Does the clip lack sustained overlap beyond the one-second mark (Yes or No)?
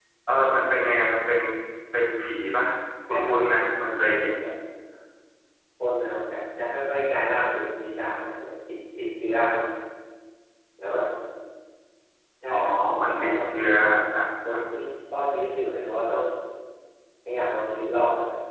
No